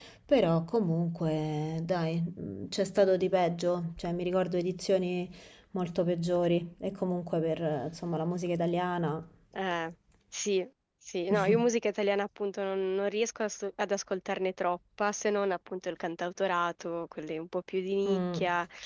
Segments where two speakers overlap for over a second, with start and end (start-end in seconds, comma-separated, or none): none